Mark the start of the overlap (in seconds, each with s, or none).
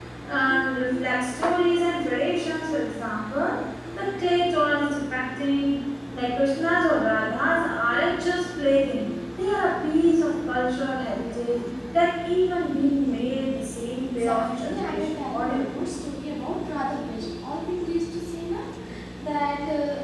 14.2 s